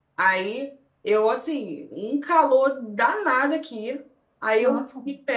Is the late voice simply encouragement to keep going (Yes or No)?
Yes